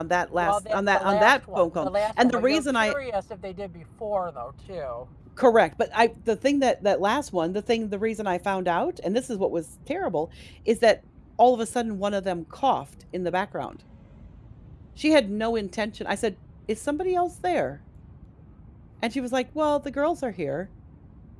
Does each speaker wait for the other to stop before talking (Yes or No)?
No